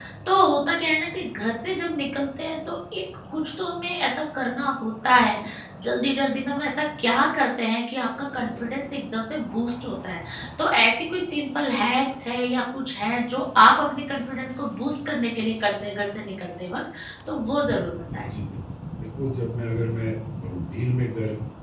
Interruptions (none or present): none